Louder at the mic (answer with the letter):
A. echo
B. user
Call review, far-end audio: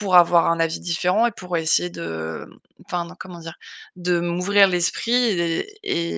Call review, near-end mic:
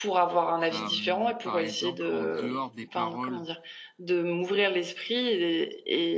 A